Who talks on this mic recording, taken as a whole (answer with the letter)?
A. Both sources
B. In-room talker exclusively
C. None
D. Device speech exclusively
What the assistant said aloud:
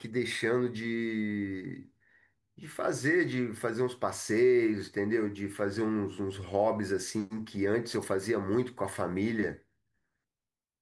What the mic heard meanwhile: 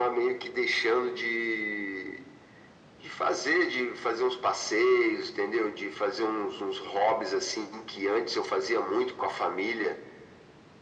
D